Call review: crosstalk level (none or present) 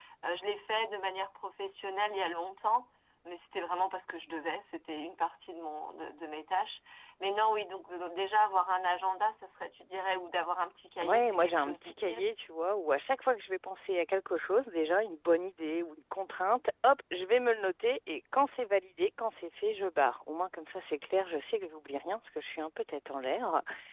present